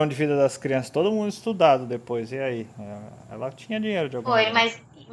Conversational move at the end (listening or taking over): taking over